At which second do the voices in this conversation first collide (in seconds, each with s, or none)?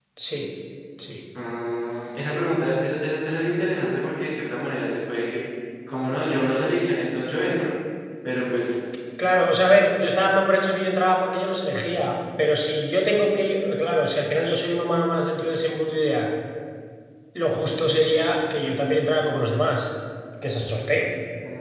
none